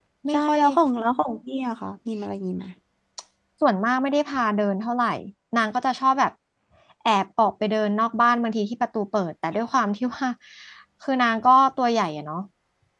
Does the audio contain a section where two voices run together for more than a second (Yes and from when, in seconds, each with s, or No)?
No